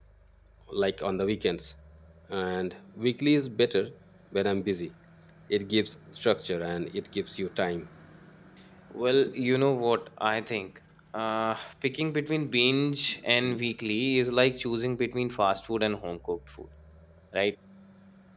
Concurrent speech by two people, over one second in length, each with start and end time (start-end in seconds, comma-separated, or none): none